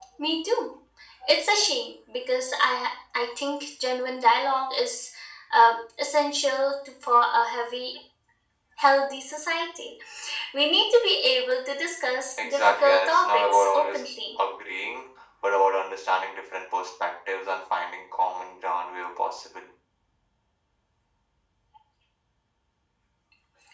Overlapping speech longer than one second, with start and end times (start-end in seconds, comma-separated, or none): 12.4-14.0